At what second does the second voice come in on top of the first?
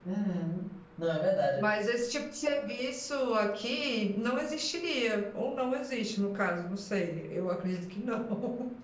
none

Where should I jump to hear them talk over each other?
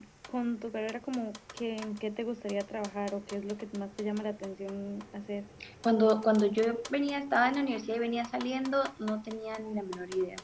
none

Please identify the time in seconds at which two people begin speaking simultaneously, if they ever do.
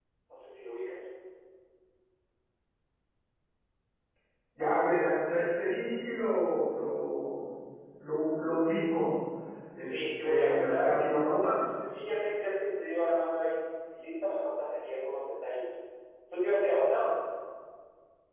9.8 s

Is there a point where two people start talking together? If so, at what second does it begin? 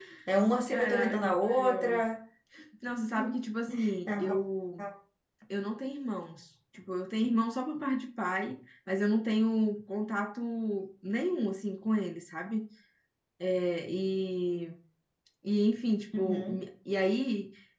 0.7 s

